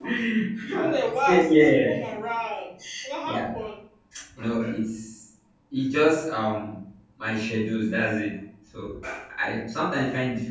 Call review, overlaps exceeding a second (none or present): present